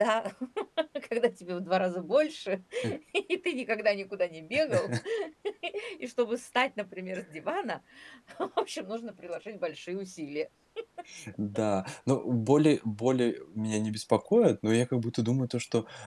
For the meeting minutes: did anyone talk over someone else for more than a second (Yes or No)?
No